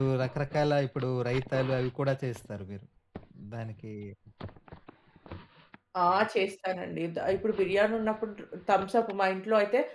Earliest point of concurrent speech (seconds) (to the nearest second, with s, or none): none